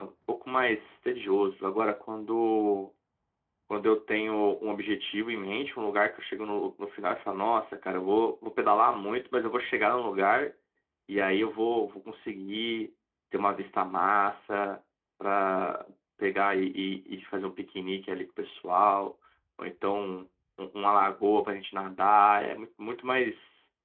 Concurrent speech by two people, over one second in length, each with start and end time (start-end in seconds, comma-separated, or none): none